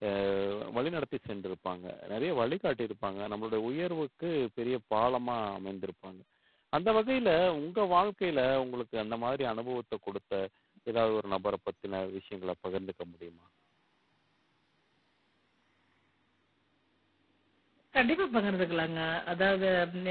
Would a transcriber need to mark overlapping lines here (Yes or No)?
No